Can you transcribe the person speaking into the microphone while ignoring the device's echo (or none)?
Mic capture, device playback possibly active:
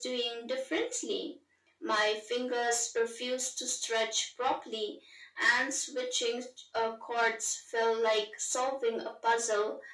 none